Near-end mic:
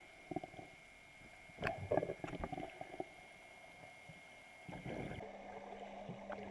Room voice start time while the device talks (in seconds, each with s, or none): none